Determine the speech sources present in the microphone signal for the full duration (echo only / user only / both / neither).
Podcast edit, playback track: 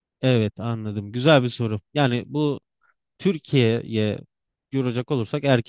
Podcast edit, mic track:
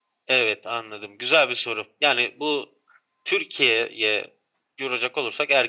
echo only